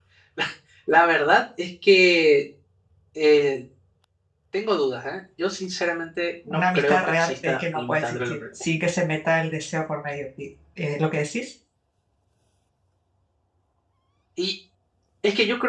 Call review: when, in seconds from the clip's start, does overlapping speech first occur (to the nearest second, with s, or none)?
6 s